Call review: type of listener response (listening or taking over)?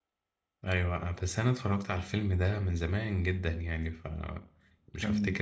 taking over